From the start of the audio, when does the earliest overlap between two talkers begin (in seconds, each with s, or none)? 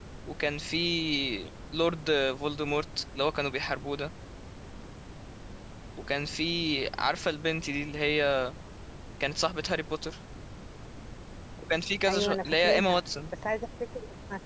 12.1 s